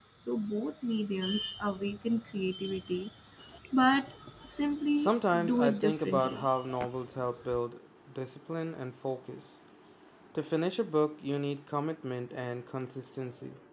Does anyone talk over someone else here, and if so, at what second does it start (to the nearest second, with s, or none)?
5 s